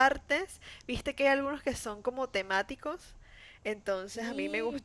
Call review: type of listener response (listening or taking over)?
listening